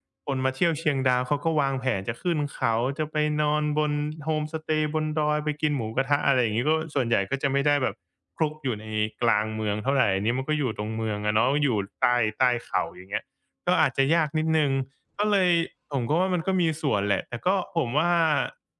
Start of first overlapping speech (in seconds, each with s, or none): none